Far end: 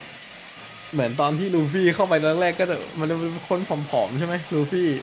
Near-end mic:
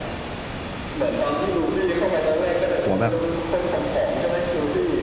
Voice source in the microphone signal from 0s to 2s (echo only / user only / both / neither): echo only